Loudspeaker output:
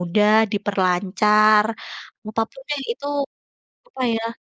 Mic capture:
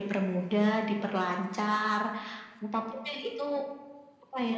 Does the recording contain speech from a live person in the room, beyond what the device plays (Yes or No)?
No